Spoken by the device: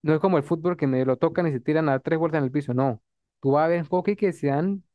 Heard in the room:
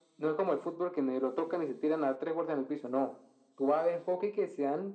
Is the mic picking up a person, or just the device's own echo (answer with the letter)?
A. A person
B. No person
B